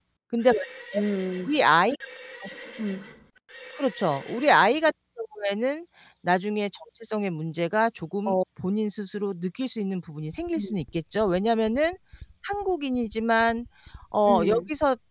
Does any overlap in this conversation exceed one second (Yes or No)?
No